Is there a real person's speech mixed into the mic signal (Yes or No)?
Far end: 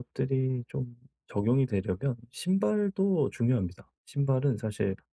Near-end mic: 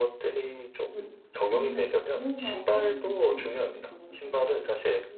Yes